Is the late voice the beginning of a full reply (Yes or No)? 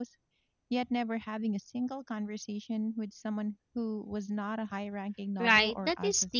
Yes